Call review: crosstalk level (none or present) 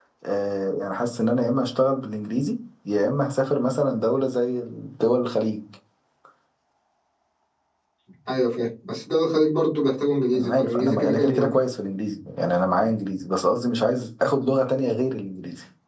present